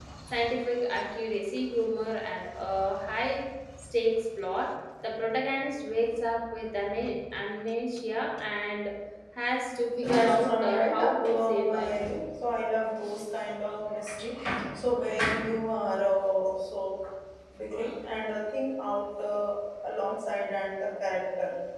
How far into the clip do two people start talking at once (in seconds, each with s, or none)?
10.0 s